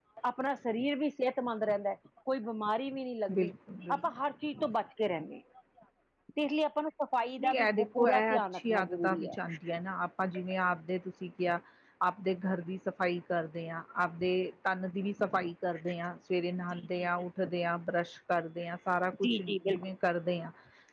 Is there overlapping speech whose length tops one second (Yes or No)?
Yes